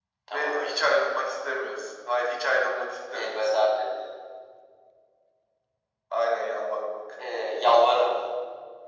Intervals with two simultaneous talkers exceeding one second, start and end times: none

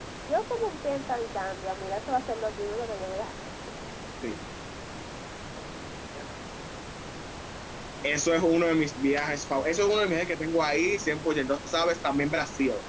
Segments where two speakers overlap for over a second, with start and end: none

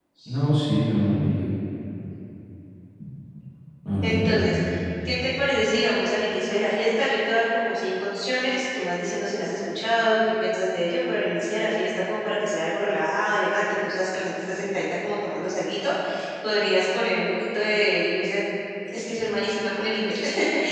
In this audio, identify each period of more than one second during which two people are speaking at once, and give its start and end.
none

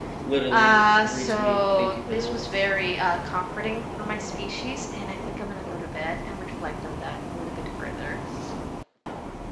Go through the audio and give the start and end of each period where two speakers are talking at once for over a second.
0.5-2.4

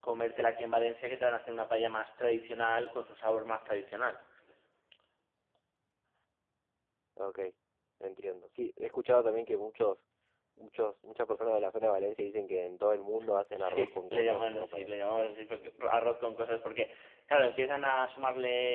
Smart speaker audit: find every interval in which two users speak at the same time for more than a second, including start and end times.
13.6-14.9

